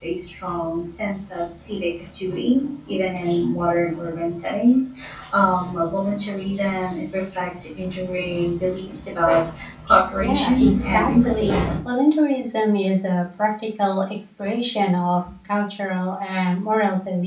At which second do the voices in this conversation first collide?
10 s

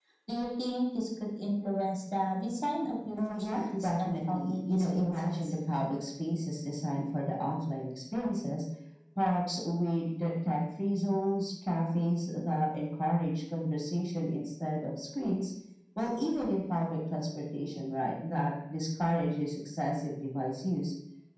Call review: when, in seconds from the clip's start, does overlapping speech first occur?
3 s

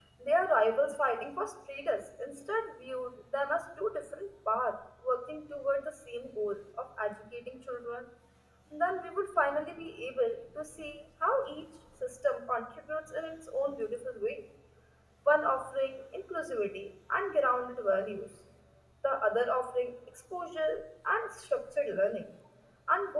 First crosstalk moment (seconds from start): none

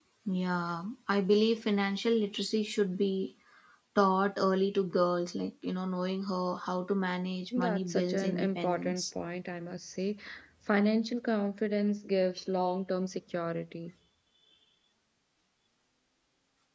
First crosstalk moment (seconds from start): 8 s

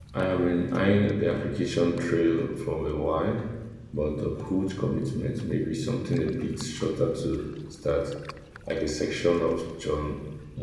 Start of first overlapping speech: none

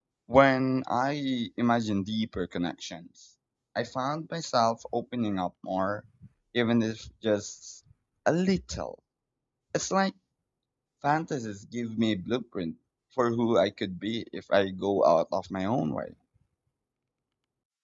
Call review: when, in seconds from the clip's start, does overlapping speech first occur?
none

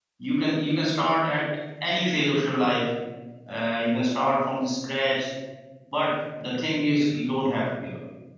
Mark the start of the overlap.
none

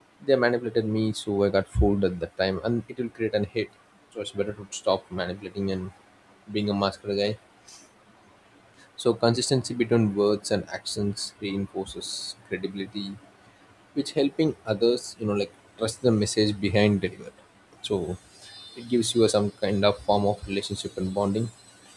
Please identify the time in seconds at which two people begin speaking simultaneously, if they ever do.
none

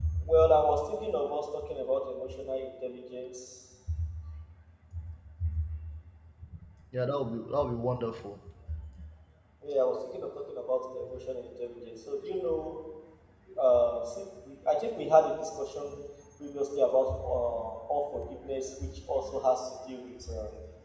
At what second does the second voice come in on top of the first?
none

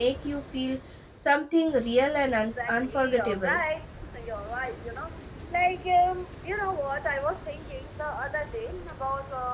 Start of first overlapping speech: 2 s

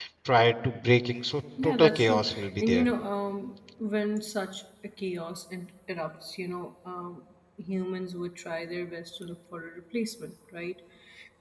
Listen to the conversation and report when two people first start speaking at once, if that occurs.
2 s

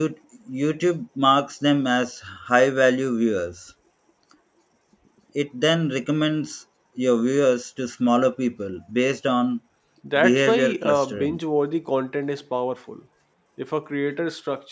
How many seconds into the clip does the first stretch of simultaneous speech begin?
10 s

